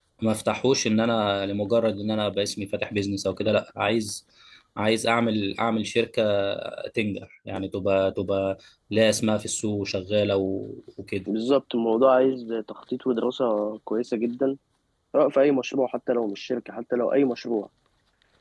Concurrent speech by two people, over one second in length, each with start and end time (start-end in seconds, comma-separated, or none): none